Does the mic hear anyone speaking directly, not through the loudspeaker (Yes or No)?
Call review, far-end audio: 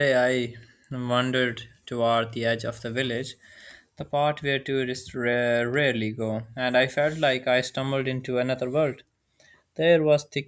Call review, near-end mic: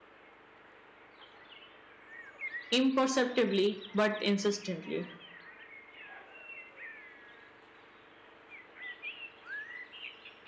Yes